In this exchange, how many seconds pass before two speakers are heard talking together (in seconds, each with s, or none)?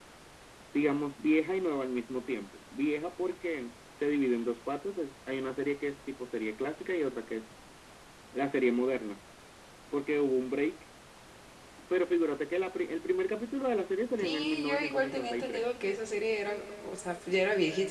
14.2 s